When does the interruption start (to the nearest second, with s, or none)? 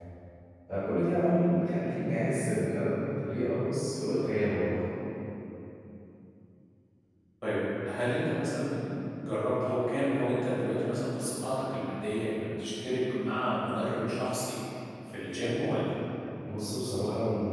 none